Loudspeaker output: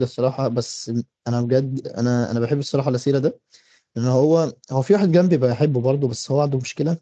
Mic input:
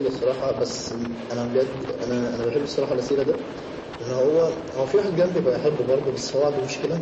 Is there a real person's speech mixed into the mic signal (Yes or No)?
No